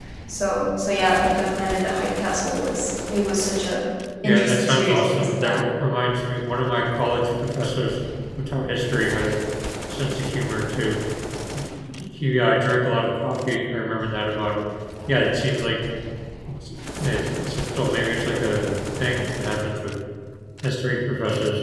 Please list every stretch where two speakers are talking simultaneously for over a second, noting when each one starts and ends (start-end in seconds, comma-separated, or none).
4.2-5.6